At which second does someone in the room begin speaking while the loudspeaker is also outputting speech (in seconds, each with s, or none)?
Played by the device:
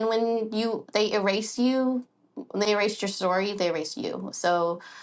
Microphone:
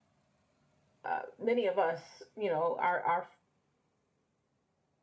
1.0 s